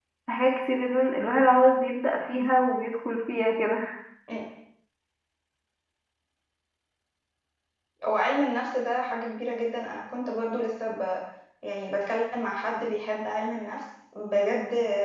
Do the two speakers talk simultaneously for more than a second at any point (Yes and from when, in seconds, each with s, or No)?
No